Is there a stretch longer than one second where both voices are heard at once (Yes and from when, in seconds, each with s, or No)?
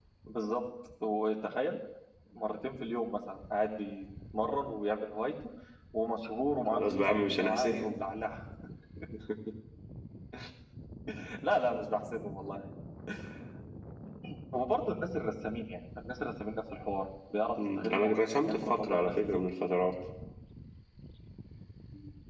Yes, from 6.7 s